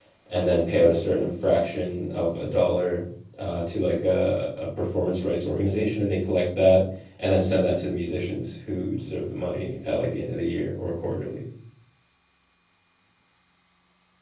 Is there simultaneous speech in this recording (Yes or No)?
No